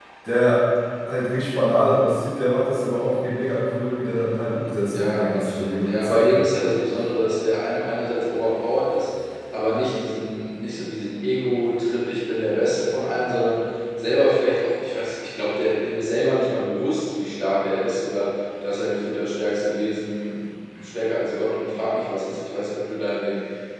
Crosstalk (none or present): present